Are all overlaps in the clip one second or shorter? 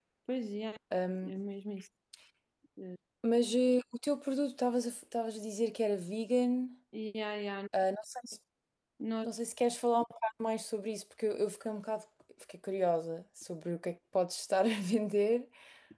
Yes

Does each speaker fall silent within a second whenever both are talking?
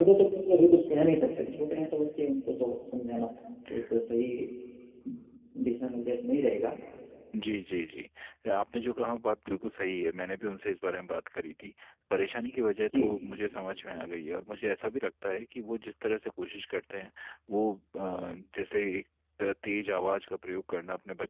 Yes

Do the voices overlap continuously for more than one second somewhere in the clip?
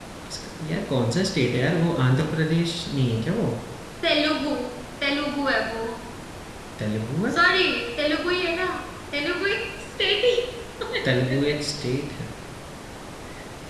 No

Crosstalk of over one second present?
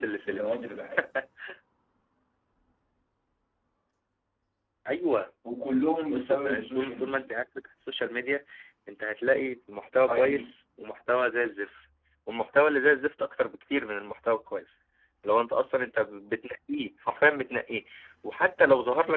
Yes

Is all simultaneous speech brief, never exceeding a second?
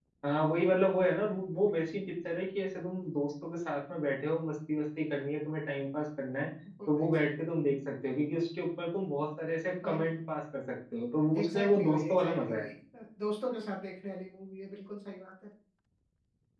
No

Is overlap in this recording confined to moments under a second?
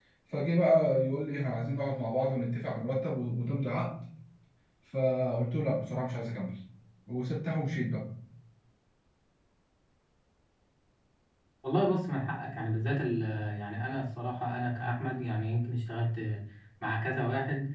Yes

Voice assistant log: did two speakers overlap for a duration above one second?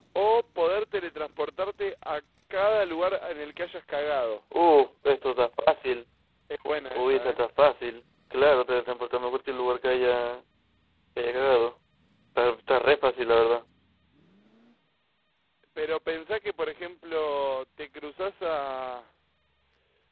No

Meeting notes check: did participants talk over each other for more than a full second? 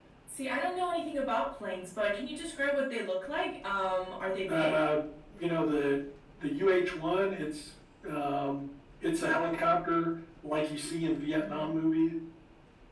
No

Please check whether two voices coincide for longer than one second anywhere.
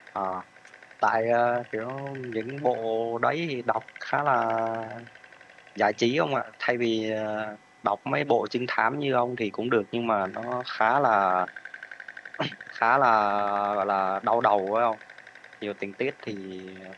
No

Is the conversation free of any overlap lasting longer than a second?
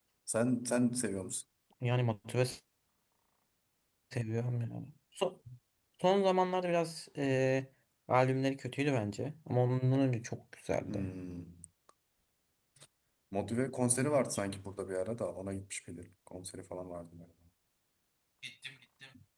Yes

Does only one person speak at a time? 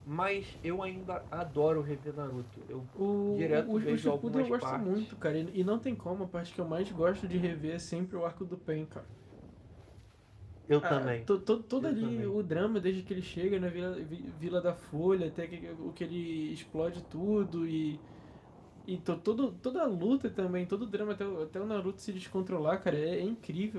No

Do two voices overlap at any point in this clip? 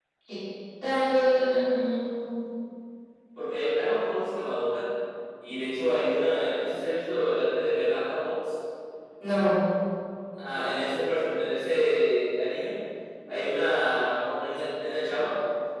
No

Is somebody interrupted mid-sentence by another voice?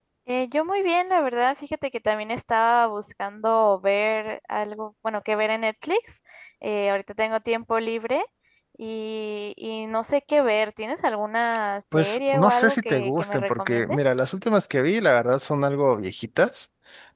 Yes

